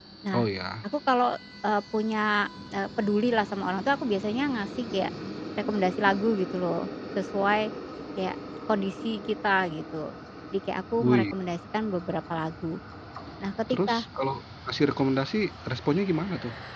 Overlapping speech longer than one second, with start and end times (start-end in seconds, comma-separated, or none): none